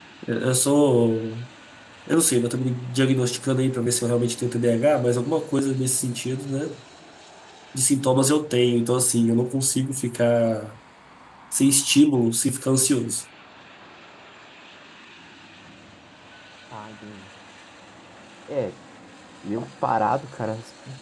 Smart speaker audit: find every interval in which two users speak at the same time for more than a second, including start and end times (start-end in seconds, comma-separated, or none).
none